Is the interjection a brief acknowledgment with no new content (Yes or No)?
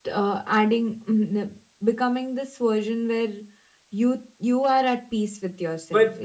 No